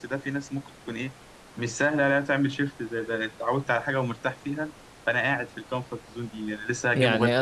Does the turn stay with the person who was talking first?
No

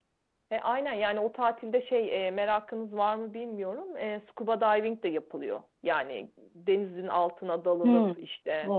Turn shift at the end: Yes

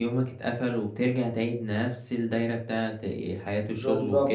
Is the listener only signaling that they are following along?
No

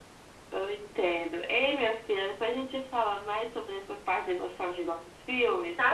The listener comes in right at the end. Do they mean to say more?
Yes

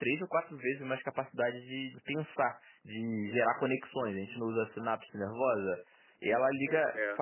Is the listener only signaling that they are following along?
Yes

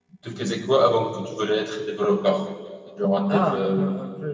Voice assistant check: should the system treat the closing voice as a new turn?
Yes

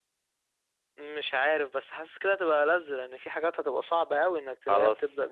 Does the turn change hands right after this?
Yes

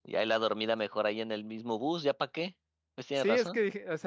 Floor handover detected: Yes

